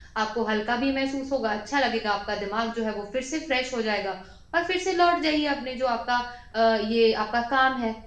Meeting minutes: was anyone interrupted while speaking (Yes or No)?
No